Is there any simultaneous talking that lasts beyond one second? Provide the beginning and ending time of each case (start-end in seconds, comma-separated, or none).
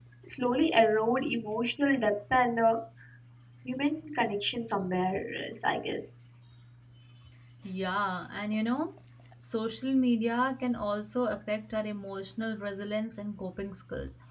none